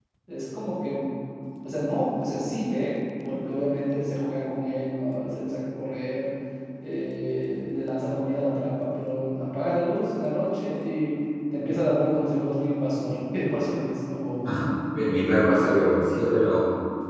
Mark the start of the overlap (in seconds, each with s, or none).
none